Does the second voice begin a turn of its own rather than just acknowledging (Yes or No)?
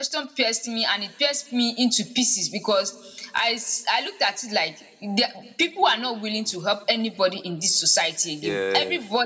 No